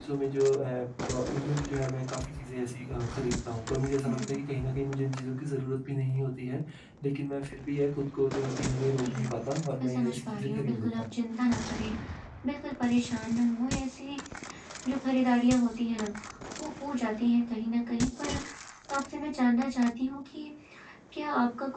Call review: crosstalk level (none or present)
present